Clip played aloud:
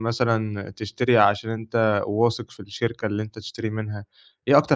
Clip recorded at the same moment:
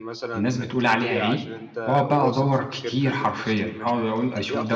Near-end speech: present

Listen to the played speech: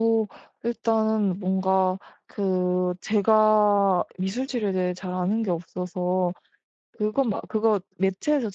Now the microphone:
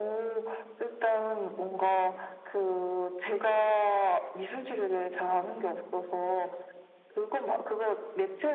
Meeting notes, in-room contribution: none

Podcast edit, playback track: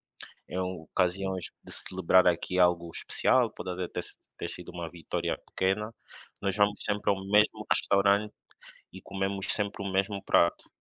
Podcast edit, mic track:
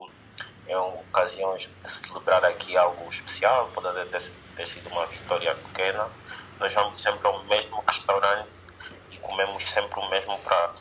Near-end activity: none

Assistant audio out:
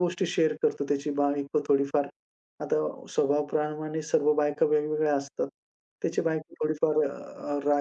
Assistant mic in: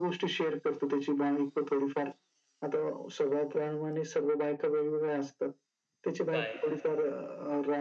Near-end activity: present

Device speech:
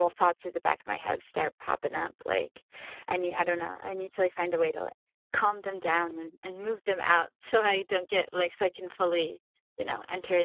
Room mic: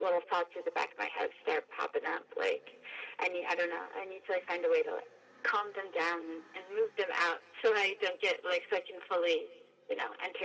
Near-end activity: none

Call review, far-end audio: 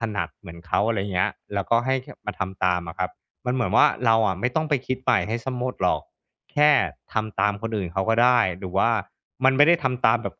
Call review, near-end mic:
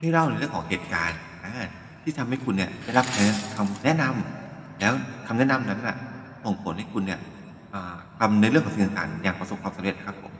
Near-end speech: present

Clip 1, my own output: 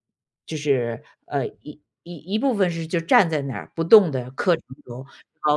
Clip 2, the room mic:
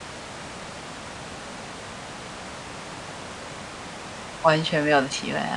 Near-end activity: present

